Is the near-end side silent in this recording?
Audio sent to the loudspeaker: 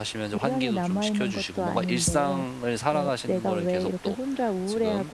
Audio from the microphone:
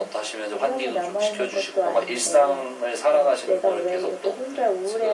Yes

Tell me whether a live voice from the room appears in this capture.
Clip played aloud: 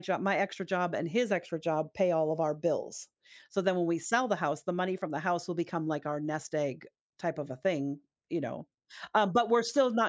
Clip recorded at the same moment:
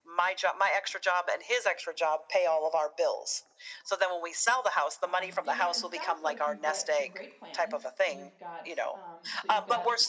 Yes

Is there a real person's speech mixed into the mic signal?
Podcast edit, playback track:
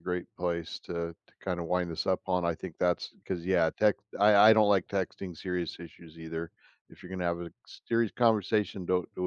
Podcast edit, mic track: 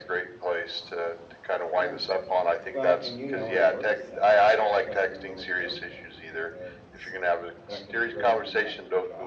Yes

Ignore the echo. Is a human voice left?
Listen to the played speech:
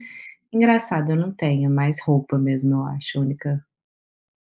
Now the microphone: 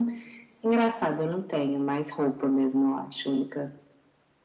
No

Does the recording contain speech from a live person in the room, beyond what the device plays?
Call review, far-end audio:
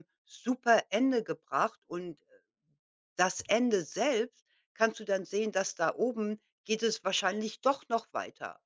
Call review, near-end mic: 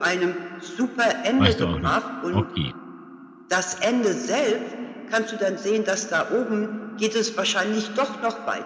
Yes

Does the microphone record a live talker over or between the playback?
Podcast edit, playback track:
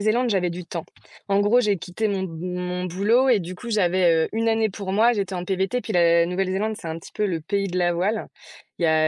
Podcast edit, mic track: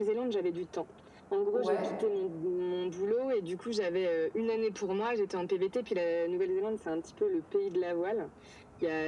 Yes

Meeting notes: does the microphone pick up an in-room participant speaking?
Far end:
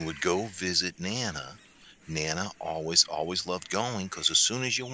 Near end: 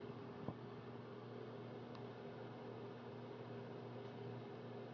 No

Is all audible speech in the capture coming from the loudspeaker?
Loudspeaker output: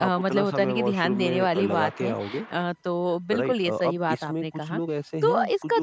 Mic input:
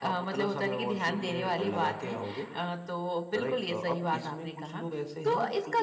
Yes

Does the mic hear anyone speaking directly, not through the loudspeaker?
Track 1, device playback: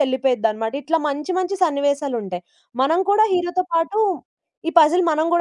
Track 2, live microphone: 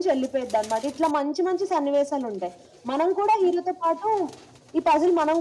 No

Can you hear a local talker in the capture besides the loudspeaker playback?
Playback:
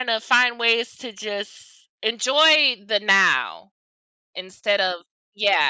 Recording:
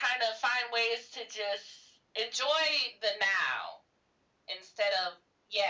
No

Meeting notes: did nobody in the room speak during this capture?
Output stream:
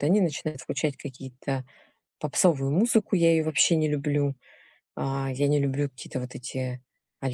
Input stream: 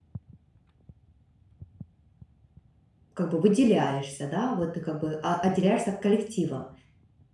No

